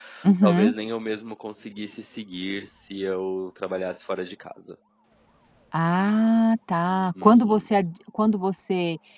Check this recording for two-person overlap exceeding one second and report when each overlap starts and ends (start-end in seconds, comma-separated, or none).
none